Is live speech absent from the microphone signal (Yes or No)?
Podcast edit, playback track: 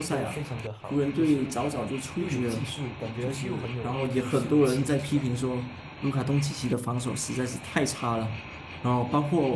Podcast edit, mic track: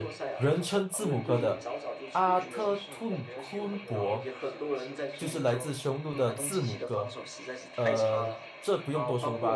No